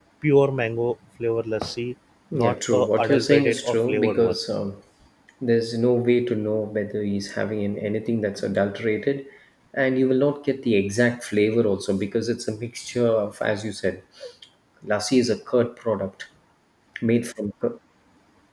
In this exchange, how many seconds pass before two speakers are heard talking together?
2 s

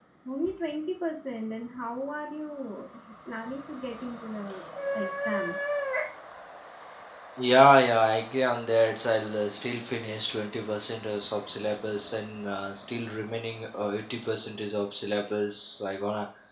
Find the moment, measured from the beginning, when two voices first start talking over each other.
none

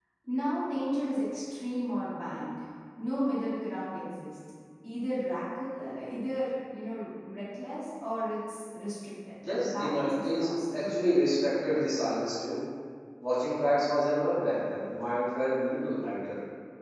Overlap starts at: 9 s

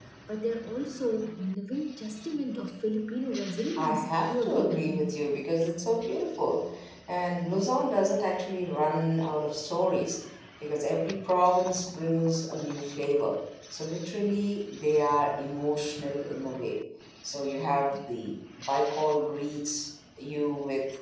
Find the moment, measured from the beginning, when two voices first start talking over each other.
4 s

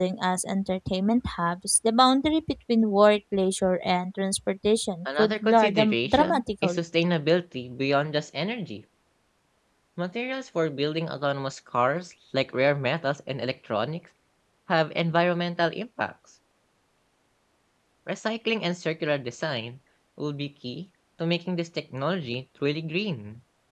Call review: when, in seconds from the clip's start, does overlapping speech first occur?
5 s

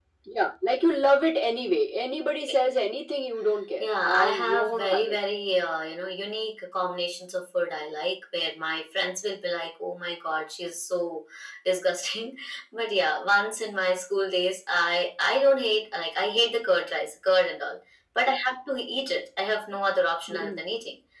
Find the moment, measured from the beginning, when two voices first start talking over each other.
4 s

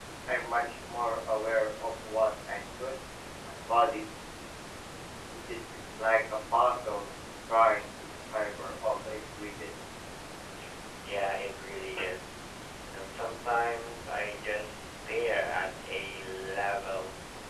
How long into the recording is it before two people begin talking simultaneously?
none

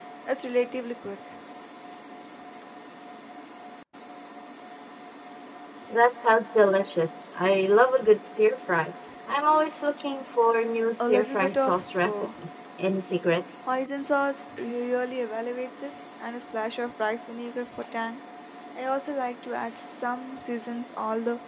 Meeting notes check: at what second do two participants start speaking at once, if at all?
11 s

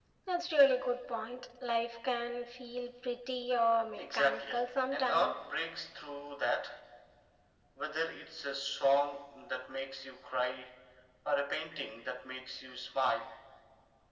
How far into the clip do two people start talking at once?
4 s

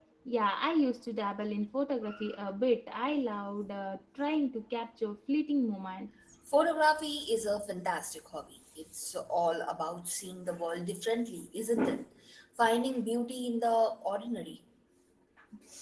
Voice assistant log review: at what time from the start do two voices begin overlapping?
none

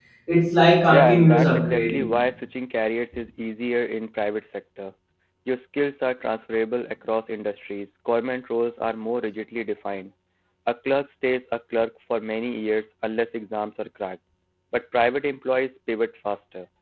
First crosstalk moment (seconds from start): 1 s

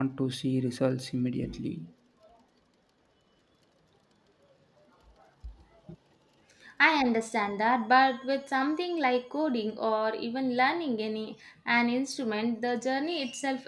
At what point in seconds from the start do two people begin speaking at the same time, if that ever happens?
none

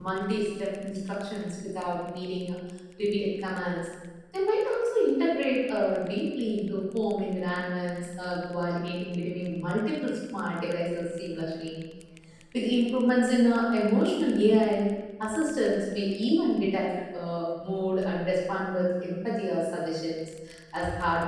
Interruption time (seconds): none

